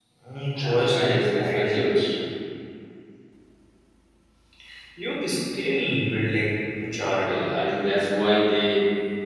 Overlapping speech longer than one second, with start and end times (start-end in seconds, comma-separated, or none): 0.6-2.1